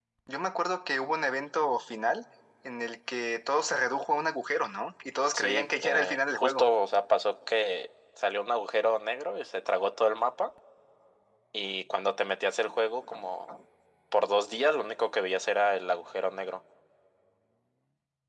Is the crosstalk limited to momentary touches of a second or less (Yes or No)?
No